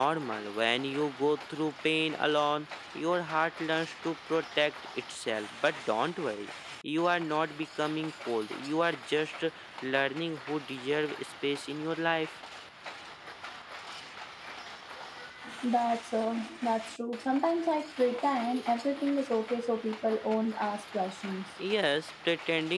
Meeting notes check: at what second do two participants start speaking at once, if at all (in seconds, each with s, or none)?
none